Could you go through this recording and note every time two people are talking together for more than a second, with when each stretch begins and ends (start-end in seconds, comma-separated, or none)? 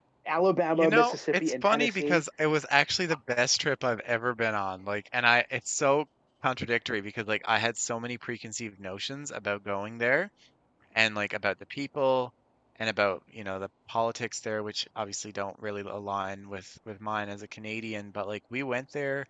0.8-2.2